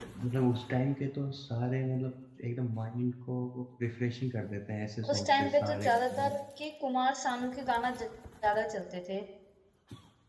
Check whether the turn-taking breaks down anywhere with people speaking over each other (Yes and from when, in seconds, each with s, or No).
Yes, from 5.0 s